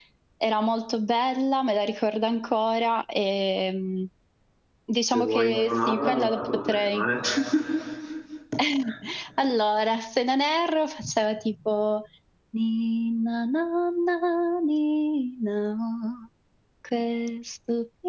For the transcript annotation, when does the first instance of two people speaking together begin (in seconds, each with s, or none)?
5.1 s